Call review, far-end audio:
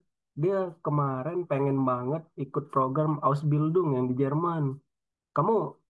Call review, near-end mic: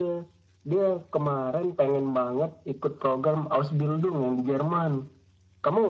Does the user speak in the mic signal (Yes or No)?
No